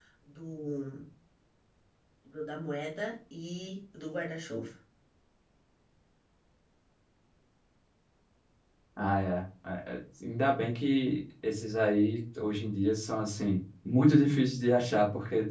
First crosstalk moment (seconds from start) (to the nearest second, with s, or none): none